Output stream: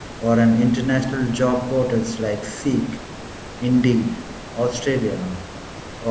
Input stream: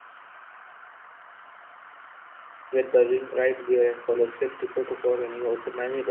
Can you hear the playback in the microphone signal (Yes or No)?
No